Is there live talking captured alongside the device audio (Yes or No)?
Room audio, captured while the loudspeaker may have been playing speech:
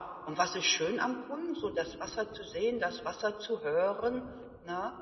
No